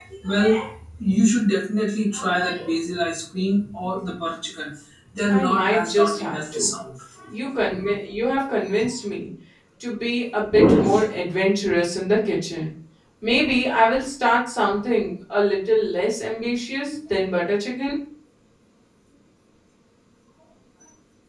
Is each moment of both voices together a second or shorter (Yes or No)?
No